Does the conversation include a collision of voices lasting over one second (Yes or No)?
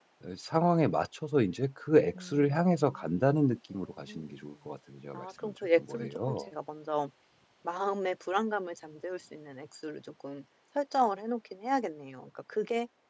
Yes